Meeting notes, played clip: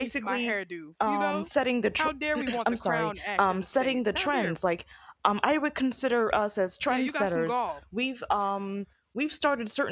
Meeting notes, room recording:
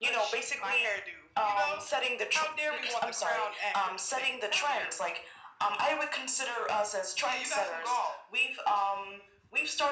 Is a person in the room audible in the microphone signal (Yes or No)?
No